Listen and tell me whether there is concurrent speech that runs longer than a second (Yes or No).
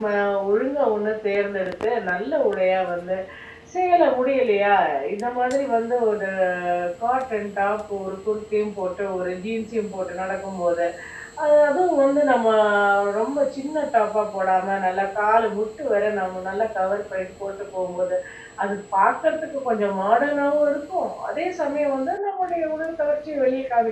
No